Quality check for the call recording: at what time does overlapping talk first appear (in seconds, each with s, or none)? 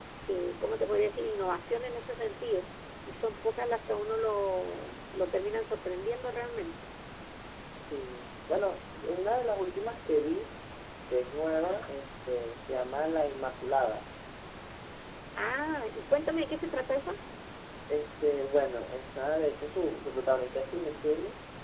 none